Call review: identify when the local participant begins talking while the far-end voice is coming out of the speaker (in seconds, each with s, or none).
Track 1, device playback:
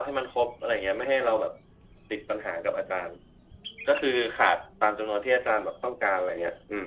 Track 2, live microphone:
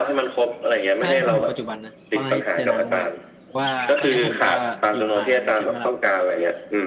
1.0 s